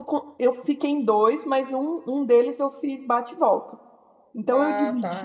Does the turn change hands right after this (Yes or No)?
No